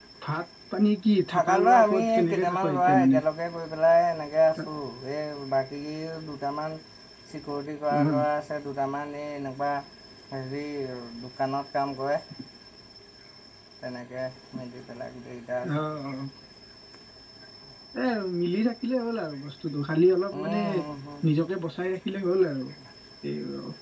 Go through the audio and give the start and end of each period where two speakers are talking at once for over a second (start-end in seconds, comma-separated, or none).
1.3-3.2